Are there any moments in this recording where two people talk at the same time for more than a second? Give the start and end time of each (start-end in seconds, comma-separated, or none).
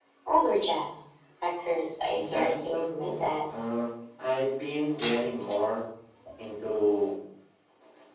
2.1-3.5